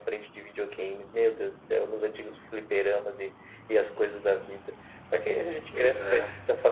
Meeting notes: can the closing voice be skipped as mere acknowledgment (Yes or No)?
Yes